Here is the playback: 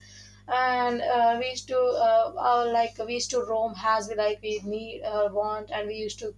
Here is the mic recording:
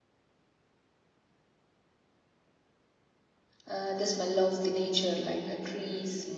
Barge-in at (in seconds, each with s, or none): 3.7 s